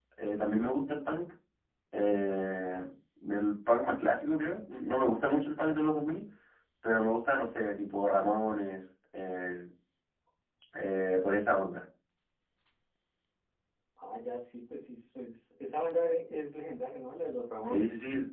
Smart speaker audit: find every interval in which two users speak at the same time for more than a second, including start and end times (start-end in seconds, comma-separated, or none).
none